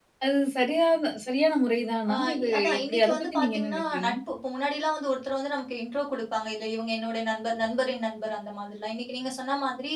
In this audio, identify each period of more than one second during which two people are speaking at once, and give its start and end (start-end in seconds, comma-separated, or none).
2.1-4.1